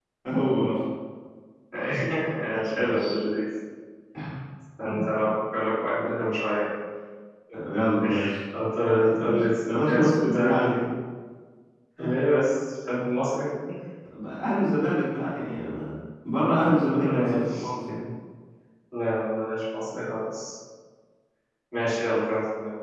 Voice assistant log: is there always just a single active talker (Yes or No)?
No